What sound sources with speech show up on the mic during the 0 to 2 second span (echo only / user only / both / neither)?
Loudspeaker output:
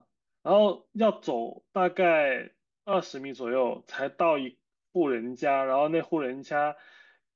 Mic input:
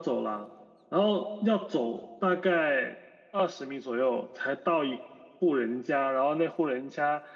echo only